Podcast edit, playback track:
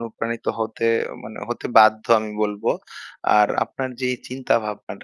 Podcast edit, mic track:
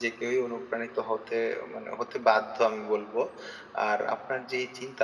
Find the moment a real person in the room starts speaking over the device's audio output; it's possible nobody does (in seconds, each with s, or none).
none